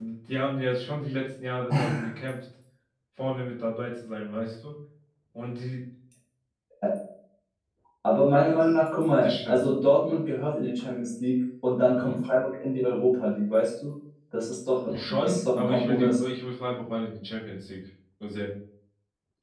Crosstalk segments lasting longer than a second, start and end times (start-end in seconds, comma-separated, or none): 14.9-16.2